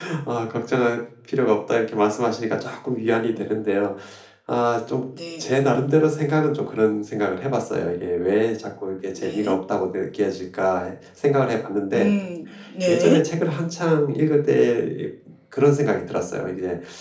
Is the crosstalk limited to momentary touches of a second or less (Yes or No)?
Yes